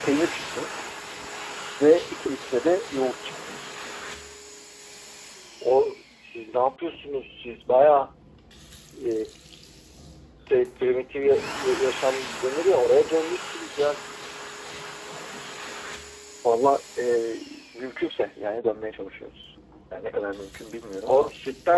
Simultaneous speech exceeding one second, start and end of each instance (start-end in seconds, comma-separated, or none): none